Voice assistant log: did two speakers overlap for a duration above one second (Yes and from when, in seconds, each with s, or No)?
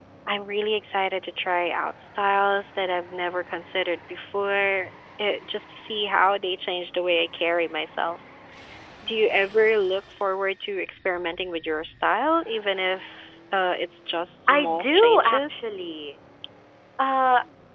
Yes, from 14.5 s